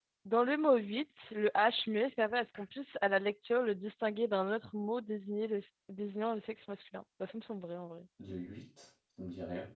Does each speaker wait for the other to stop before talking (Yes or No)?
Yes